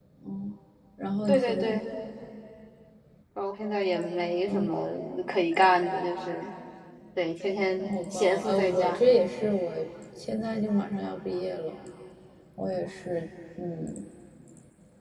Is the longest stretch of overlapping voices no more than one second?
No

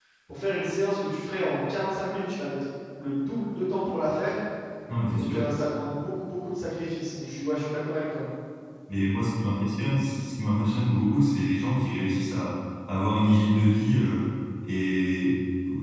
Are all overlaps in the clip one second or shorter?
Yes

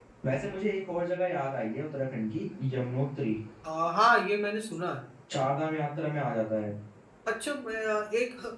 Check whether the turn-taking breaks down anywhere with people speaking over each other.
No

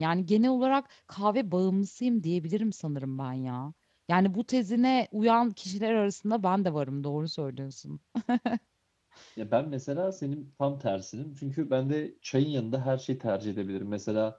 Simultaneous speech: No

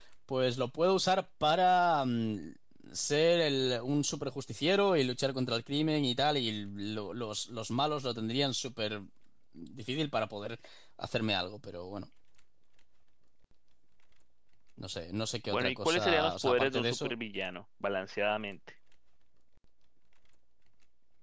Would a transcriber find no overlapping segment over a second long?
No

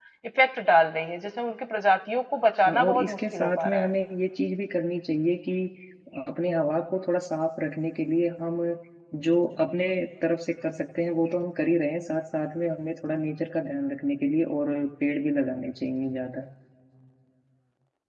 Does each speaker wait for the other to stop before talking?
No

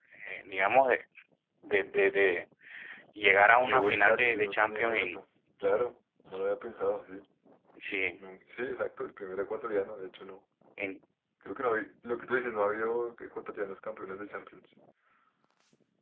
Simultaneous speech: Yes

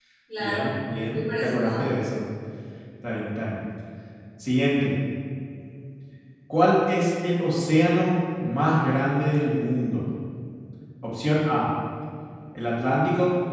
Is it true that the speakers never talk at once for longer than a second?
No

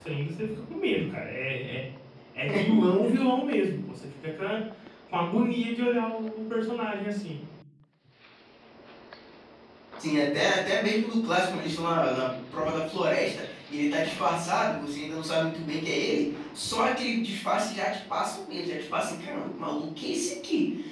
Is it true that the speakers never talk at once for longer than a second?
Yes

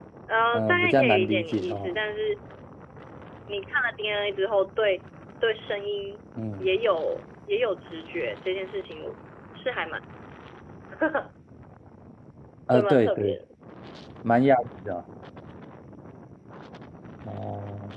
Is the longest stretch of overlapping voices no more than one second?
No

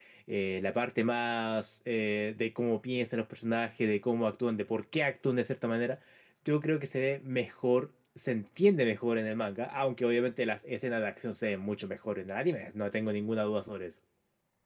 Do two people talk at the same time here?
No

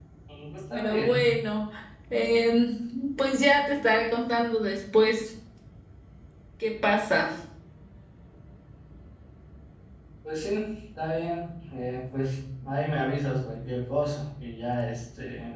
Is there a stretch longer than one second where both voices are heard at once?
No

